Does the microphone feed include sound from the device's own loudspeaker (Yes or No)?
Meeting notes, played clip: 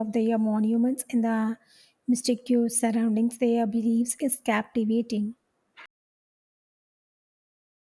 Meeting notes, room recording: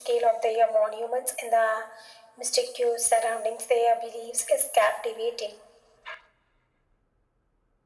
Yes